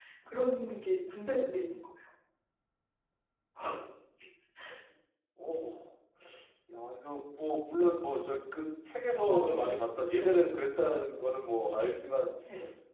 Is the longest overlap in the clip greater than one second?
No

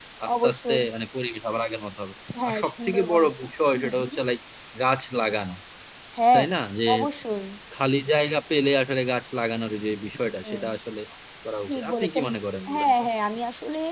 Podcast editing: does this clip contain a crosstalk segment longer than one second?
Yes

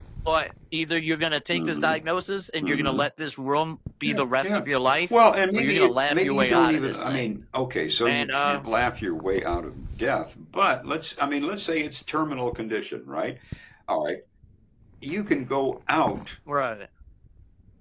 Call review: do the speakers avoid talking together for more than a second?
No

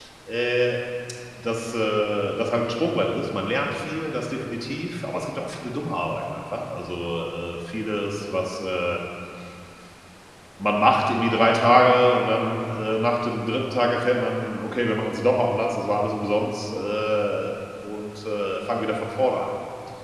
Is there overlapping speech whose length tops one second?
No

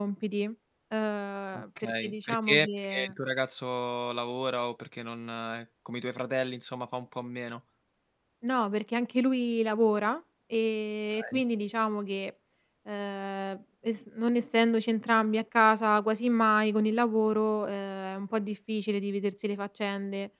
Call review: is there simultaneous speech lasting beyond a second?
Yes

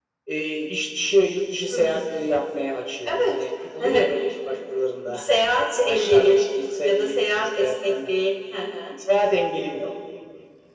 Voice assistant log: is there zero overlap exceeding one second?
No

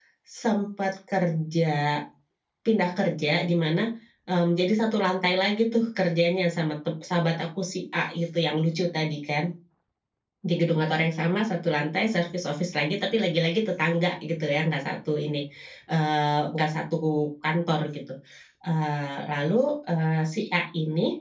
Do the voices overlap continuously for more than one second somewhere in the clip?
No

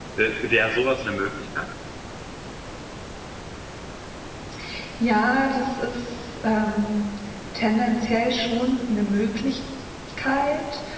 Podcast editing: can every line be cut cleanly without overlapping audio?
Yes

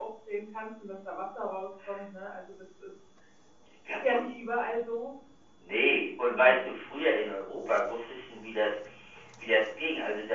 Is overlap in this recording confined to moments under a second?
Yes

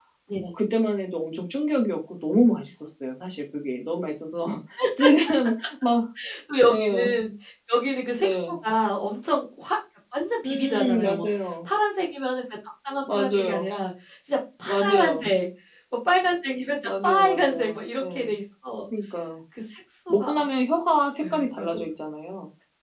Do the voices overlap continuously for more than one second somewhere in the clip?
Yes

